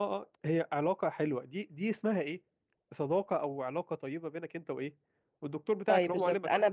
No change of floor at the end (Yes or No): No